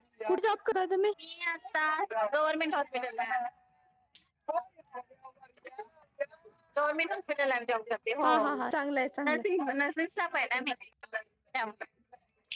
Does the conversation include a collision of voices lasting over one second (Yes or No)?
No